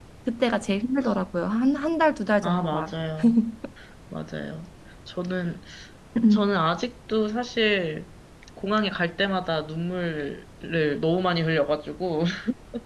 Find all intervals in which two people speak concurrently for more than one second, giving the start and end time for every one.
none

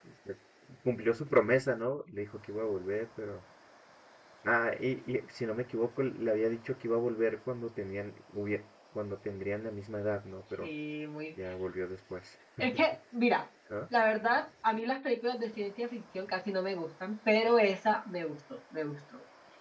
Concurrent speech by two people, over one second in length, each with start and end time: none

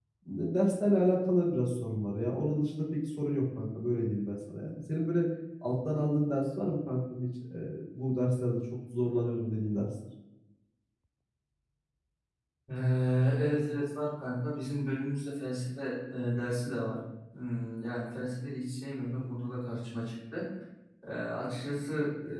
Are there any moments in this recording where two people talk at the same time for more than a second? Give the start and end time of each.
none

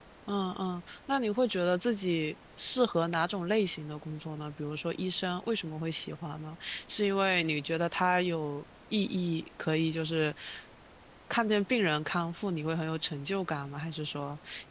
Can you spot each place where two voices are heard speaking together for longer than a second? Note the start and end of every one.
none

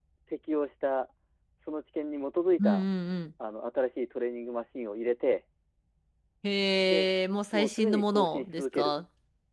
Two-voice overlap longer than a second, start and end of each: 7.5-8.9

